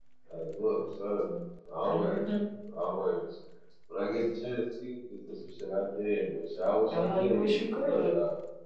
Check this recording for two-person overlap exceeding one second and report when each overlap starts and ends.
6.9-8.1

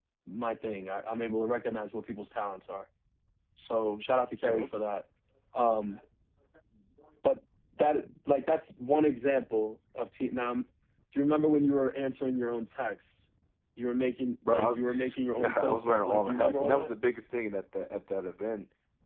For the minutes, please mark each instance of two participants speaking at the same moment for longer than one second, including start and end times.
14.5-16.9

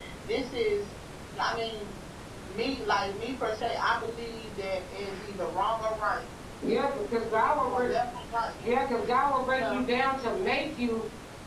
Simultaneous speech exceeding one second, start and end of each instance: none

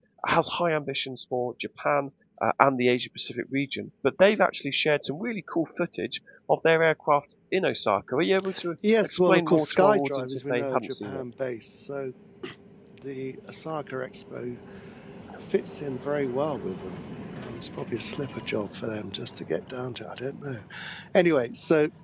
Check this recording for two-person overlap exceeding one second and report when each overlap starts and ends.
9.0-11.2

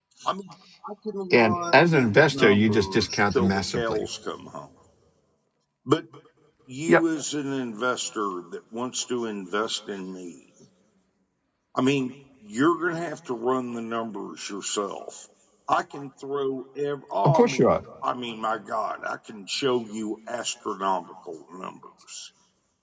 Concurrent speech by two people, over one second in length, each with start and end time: 1.3-4.1

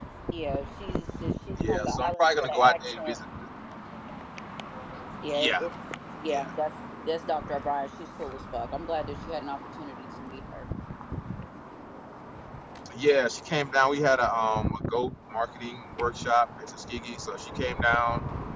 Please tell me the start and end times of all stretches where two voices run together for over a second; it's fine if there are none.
1.7-3.2

